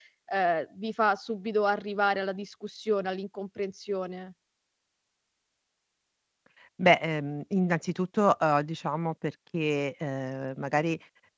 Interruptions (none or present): none